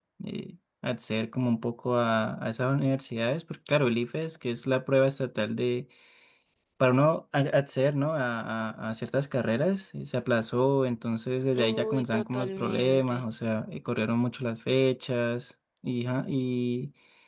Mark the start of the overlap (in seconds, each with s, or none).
11.5 s